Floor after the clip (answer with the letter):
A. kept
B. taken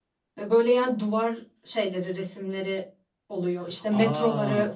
B